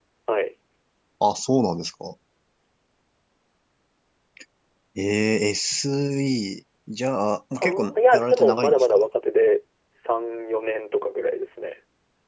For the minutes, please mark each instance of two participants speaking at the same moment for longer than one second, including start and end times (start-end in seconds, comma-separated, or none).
7.6-9.0